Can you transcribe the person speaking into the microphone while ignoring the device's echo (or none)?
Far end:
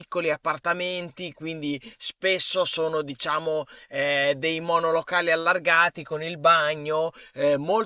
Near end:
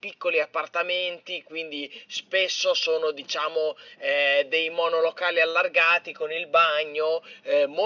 none